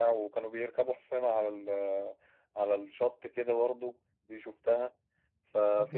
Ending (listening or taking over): listening